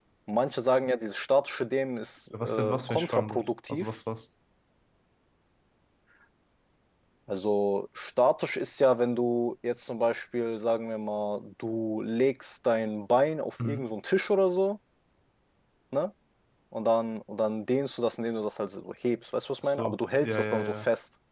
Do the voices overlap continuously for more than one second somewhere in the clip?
Yes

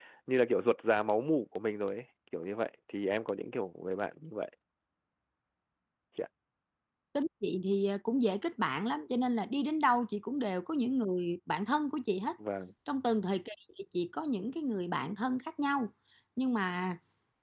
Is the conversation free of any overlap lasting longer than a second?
Yes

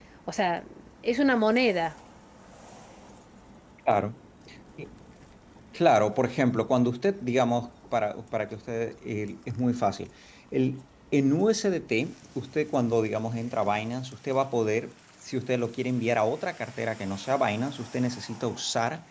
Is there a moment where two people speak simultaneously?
No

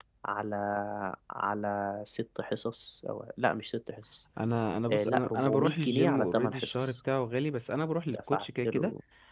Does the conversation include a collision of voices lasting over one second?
Yes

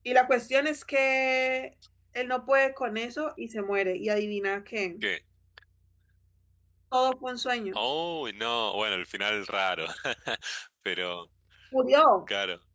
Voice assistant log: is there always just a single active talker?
Yes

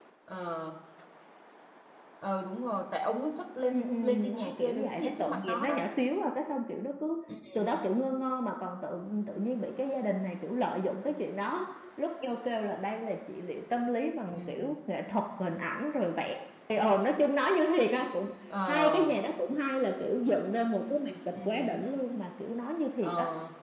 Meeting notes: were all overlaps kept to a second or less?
No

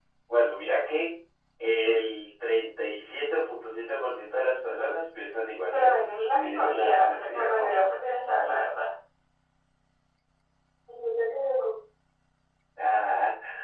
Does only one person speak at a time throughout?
No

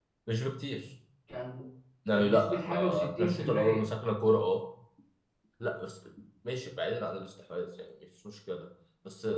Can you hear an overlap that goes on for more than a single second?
Yes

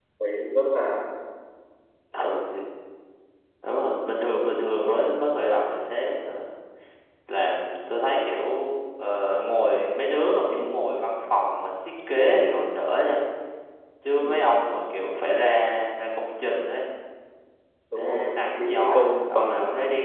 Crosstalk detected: Yes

